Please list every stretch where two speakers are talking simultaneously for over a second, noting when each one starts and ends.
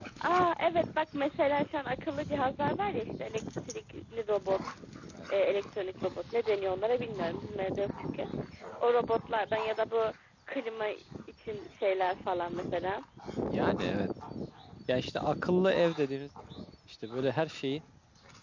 none

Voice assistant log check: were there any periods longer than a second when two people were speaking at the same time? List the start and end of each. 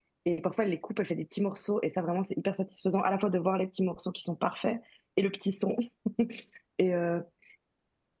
none

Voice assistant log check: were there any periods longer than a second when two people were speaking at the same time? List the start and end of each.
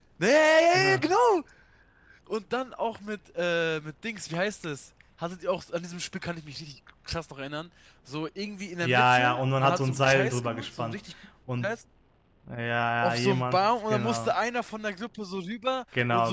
8.8-11.0, 13.0-14.3

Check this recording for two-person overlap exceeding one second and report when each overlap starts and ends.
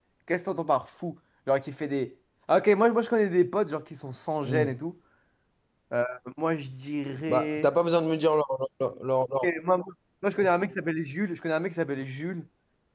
none

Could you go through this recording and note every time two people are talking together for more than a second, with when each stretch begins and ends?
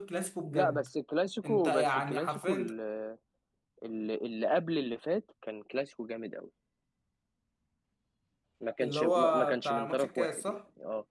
1.4-2.7, 8.8-10.6

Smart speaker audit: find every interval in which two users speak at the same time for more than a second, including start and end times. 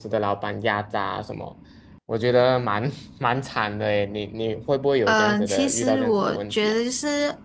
5.1-6.7

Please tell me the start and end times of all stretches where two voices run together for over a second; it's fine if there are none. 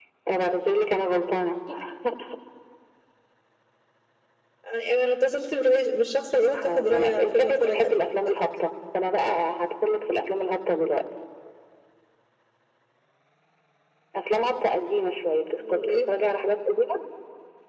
6.5-8.0

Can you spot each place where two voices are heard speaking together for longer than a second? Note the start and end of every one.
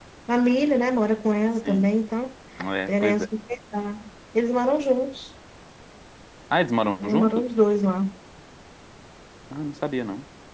none

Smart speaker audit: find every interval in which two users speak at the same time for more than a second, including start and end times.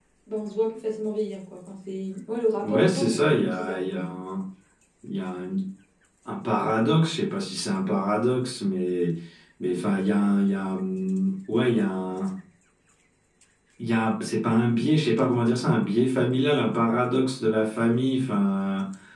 2.6-4.0

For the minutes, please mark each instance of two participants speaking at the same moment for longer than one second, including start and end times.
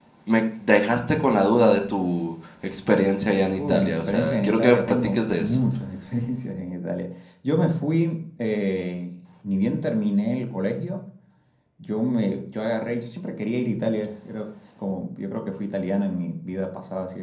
3.6-5.6

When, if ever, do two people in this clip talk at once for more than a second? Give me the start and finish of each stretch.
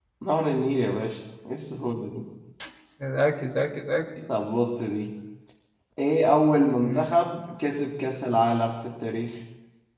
none

